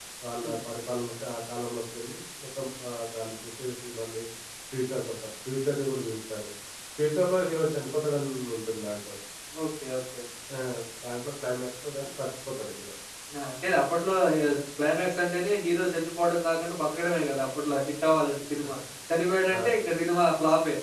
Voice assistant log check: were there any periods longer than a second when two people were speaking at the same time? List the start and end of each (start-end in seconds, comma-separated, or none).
none